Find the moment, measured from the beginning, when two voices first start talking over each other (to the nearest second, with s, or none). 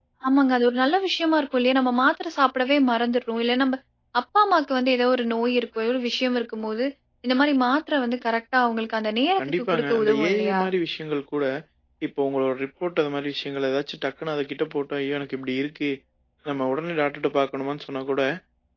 9 s